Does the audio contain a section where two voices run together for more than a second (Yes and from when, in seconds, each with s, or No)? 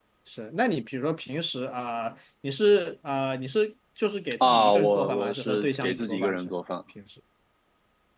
Yes, from 4.4 s